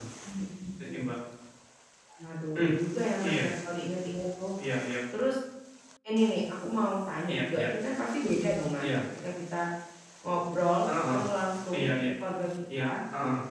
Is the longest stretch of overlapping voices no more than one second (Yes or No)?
Yes